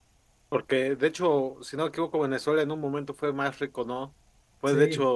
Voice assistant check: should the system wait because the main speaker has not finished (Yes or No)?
Yes